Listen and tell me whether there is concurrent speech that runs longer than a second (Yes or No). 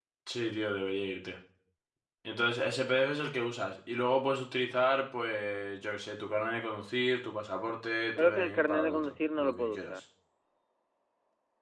Yes